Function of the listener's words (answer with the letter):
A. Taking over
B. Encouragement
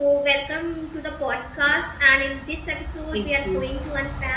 B